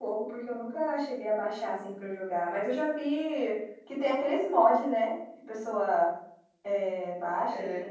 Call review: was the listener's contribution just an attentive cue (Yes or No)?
Yes